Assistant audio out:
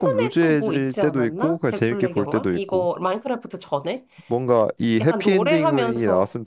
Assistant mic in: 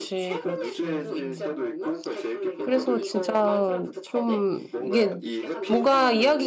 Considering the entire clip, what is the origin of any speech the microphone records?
both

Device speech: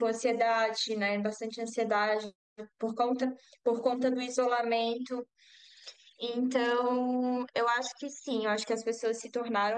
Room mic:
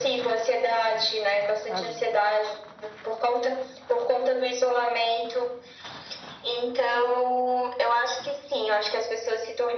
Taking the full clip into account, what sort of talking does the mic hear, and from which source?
both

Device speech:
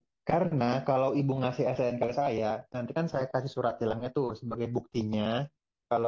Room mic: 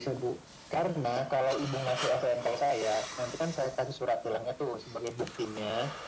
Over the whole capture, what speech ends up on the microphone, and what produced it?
echo only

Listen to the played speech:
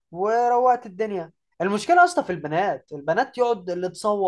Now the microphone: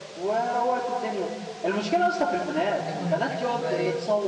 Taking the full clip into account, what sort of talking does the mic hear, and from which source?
both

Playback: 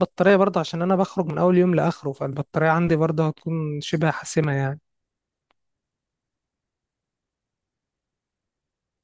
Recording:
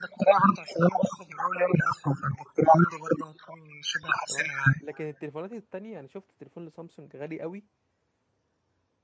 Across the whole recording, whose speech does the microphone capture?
both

